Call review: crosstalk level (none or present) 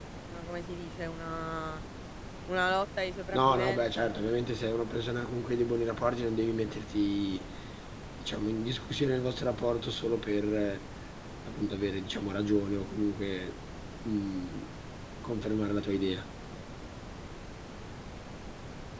present